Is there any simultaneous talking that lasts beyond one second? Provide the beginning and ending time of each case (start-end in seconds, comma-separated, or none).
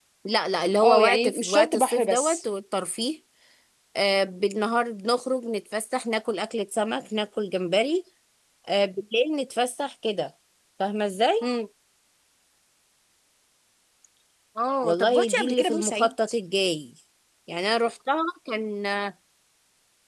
0.8-2.4, 14.8-16.1